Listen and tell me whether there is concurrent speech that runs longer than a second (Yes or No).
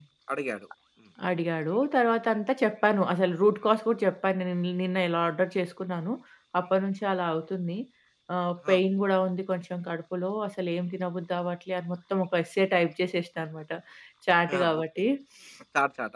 No